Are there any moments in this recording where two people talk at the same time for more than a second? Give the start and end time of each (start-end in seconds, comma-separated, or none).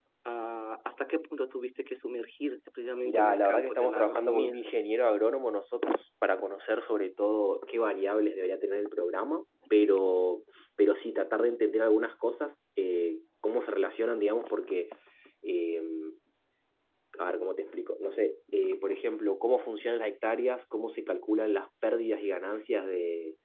3.0-4.6